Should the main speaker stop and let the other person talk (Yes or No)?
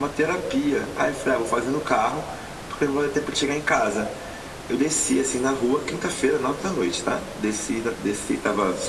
No